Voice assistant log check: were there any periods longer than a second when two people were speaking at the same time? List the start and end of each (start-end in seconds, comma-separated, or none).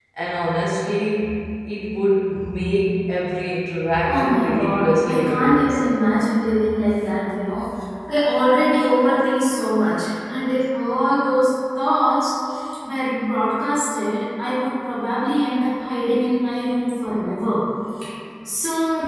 4.1-5.8